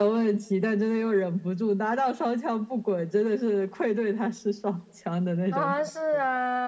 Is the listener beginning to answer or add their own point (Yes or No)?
Yes